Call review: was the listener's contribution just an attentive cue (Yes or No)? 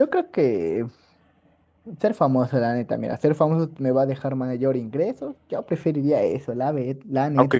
No